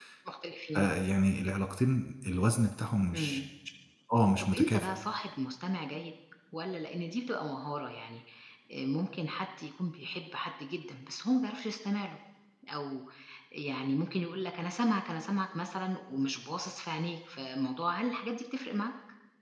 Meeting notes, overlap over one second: none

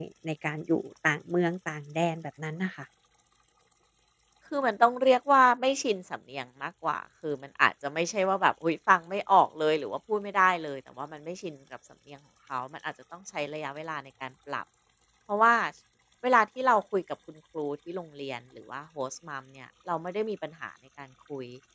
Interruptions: none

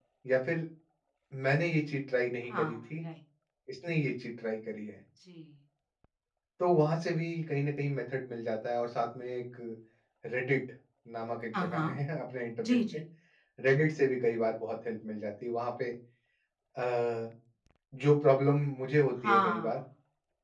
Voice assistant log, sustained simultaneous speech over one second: none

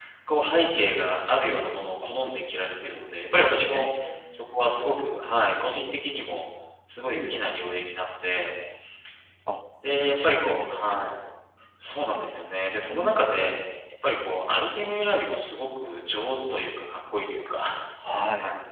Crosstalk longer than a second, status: present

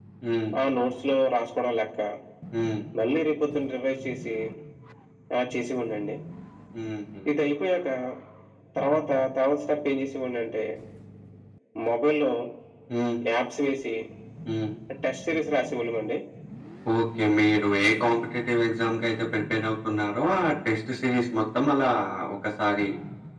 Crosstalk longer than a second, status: none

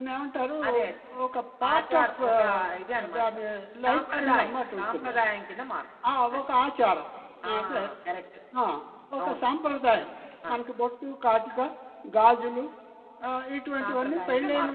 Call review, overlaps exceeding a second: present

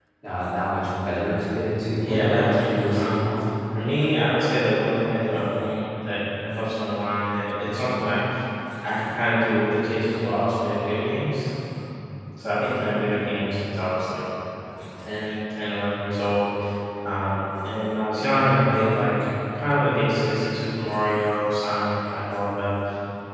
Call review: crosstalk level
present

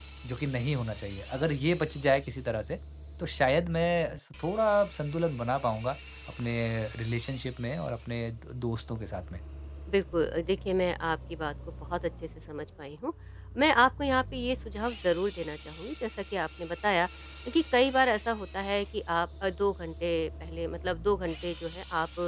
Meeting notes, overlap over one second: none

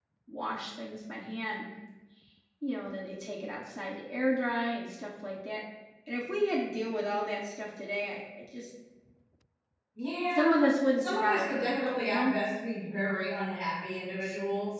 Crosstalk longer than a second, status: present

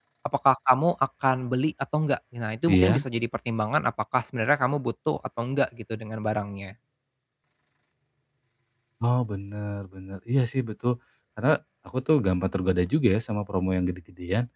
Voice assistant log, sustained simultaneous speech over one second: none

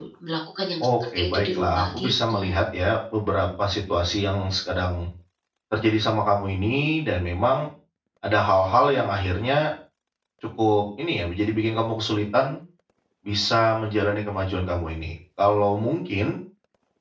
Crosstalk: present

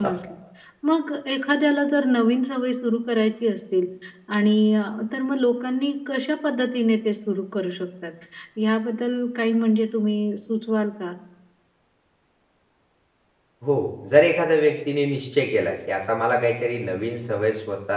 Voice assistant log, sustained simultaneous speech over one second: none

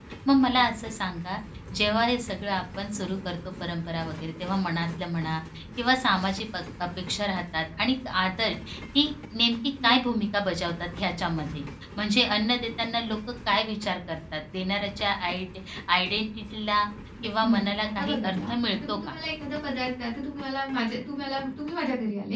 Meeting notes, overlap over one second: present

